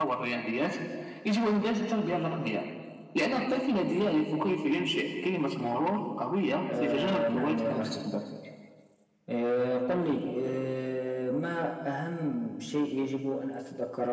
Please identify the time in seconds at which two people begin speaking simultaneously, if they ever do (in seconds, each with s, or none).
6.7 s